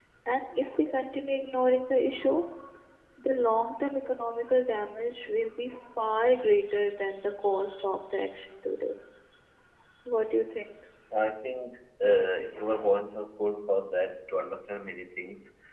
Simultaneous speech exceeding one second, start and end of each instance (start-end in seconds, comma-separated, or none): none